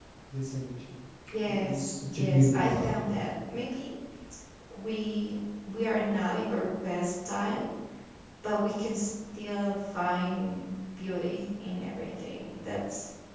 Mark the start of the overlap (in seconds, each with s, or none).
1.4 s